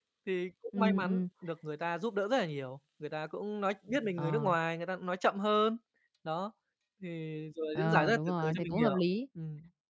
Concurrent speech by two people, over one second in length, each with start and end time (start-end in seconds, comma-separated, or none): 7.8-9.0